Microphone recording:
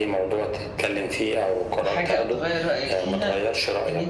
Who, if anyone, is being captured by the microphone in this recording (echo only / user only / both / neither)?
both